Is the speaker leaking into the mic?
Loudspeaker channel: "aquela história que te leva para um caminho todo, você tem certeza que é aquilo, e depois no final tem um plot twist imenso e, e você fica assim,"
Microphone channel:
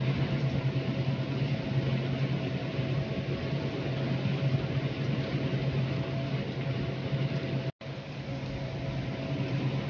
No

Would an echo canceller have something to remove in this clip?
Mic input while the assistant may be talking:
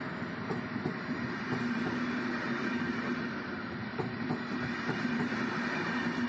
No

